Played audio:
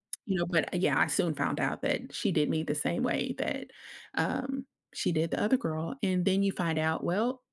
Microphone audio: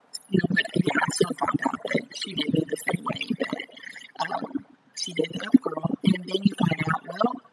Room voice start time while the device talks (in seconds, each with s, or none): none